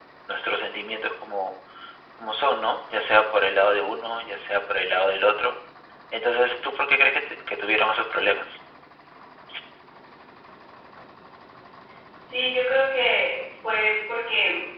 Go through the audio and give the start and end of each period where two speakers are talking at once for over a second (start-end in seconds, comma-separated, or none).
none